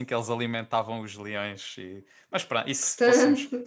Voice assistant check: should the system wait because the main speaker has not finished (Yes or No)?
Yes